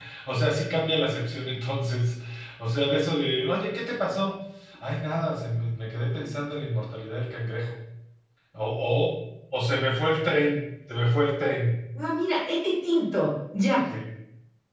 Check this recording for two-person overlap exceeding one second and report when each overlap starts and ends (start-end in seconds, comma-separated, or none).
none